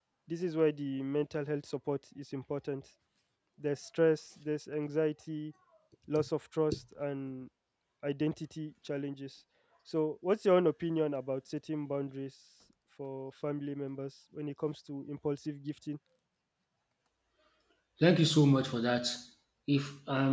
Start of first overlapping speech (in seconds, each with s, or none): none